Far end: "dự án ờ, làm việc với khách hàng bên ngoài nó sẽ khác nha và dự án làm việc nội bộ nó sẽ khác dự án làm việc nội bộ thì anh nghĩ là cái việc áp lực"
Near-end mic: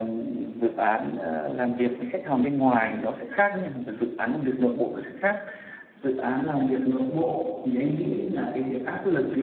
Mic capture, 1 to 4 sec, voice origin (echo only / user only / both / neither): echo only